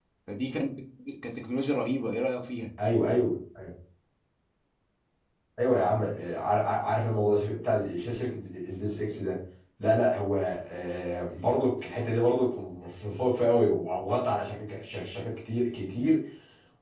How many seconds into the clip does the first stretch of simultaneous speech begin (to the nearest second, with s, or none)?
none